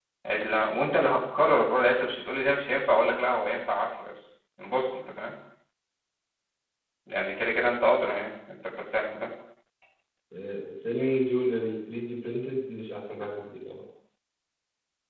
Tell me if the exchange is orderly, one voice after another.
Yes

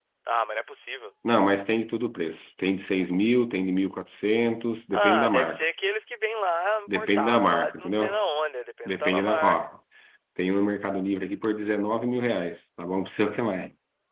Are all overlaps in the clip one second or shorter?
No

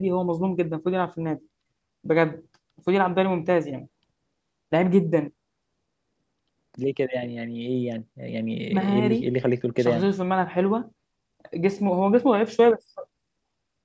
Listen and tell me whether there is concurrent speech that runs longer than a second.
No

